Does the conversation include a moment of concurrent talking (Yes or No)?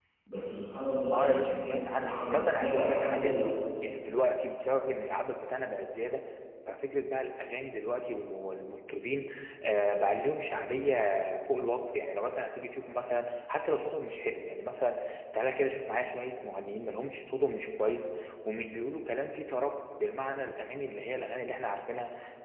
Yes